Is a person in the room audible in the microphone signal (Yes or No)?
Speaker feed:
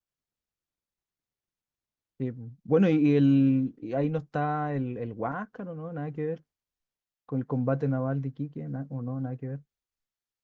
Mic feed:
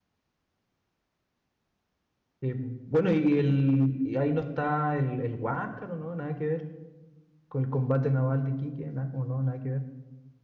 No